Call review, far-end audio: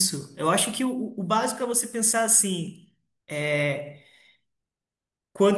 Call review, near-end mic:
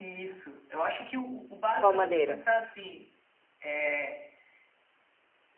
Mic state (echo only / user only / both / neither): both